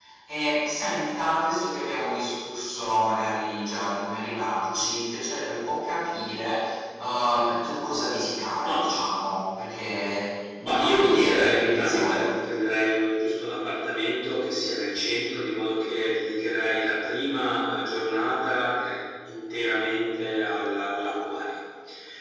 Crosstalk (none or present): present